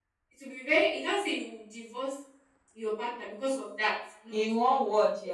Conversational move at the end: taking over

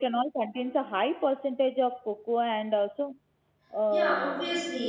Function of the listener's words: taking over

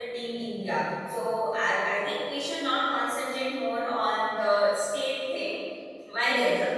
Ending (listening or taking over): listening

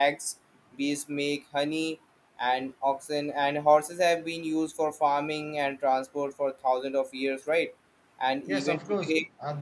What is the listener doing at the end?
taking over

